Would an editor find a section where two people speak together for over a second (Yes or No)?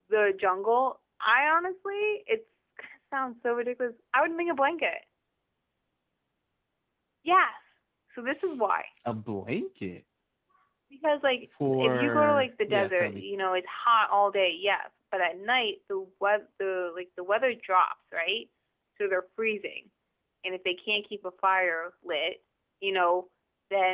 Yes